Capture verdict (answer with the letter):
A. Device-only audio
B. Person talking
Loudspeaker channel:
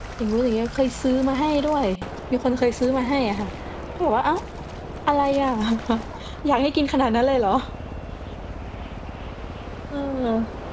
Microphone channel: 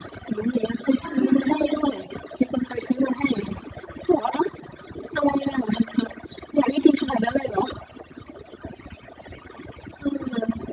B